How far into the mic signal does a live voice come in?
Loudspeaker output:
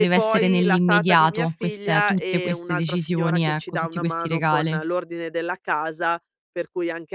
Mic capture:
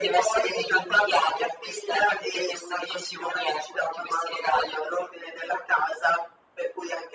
none

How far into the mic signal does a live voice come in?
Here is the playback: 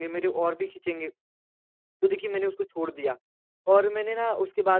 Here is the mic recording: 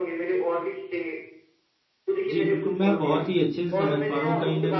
2 s

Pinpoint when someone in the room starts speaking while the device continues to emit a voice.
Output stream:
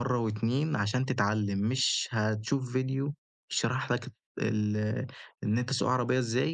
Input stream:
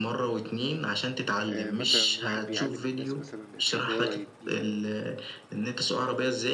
1 s

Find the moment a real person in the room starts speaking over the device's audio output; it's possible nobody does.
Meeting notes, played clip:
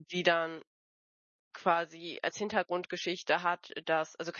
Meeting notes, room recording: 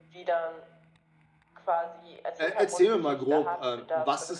2 s

